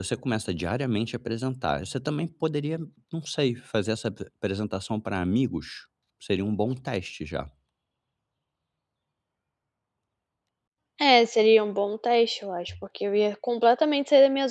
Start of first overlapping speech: none

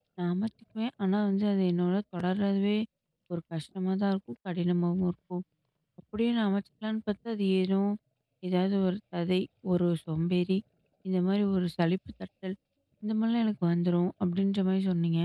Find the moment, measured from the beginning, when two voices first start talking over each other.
none

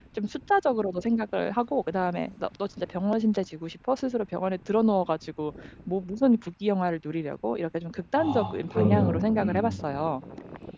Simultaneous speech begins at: 8.2 s

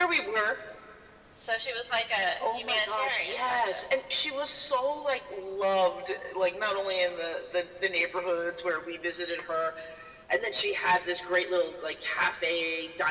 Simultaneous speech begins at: 2.4 s

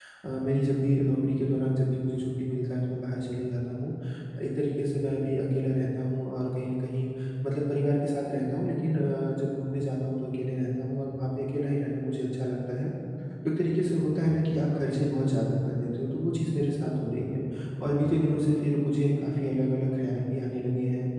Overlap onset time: none

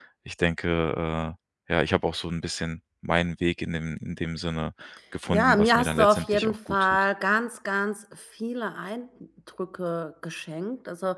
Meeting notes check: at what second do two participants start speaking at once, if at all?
5.3 s

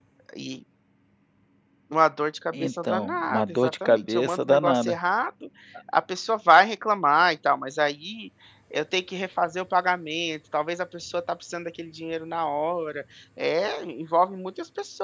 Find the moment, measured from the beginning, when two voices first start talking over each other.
2.5 s

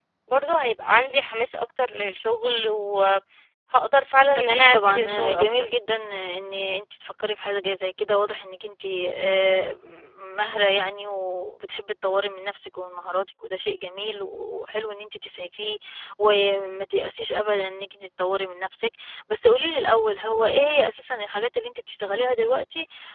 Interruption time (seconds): 4.3 s

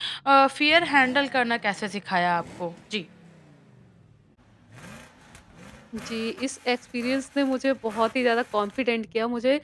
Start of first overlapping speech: none

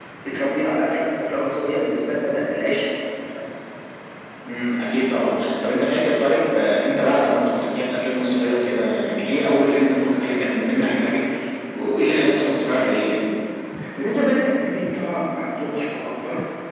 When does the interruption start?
none

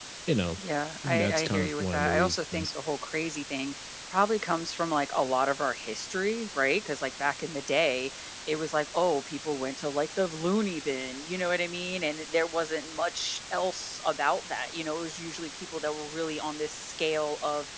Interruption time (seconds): 1.0 s

